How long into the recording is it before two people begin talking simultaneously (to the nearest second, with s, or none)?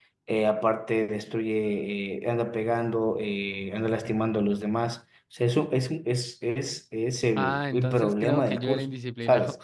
7 s